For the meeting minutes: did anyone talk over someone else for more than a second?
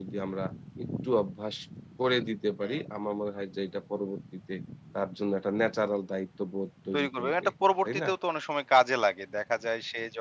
No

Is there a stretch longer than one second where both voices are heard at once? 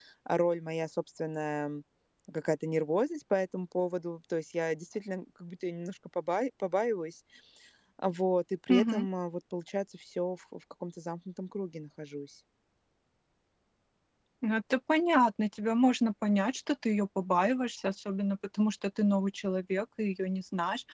No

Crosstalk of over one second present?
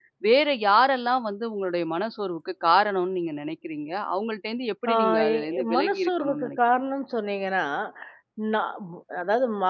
Yes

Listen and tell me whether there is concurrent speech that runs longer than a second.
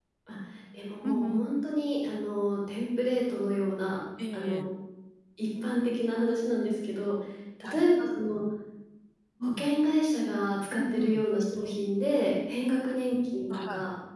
No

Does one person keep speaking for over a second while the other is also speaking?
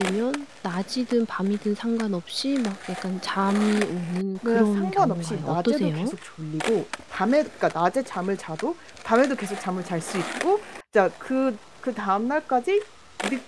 Yes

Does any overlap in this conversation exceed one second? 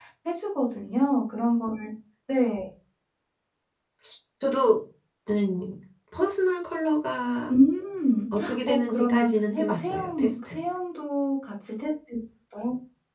Yes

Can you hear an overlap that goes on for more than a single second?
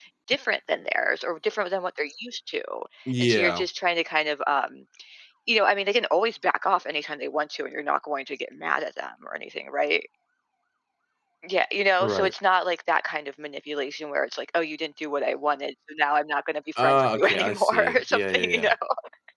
Yes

